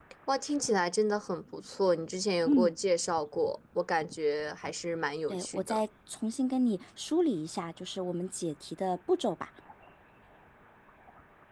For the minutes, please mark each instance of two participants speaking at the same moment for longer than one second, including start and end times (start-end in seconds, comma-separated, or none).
none